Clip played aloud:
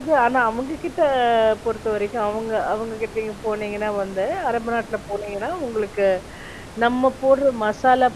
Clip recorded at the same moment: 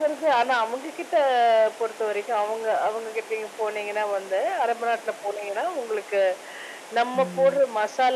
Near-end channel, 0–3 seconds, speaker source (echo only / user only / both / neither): echo only